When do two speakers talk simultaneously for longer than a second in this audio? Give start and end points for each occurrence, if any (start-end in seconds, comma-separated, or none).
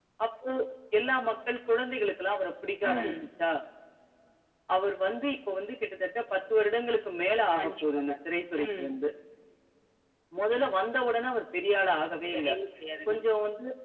none